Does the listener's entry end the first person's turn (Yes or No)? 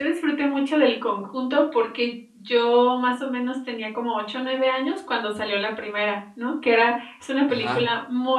No